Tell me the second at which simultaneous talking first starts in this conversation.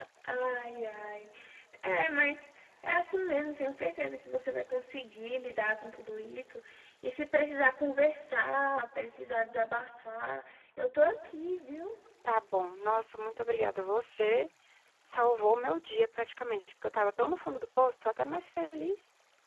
none

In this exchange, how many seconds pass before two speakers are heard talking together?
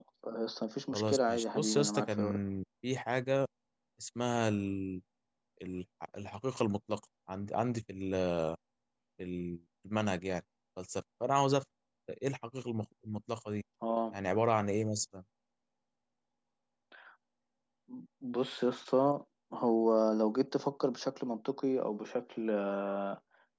0.9 s

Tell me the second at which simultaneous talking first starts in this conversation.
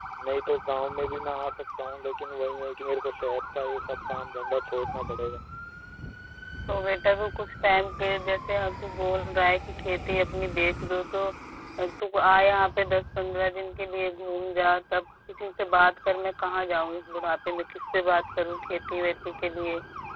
none

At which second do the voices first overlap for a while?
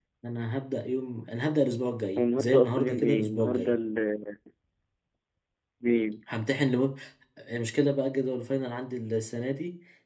2.2 s

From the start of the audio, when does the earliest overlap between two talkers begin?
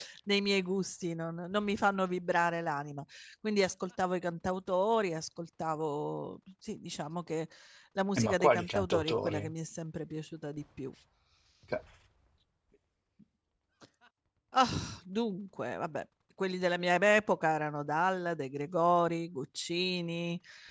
8.2 s

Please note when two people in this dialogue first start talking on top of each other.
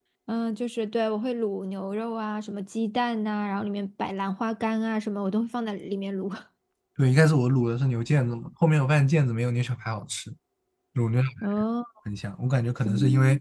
none

